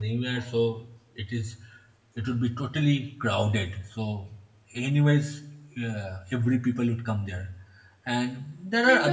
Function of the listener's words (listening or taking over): taking over